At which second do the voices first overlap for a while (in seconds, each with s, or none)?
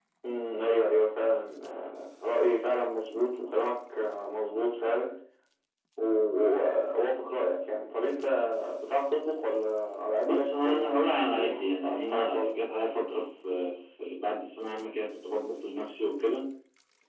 10.2 s